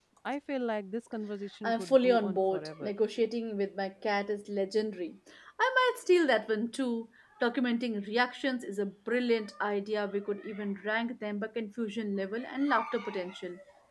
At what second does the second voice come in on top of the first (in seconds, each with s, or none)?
1.6 s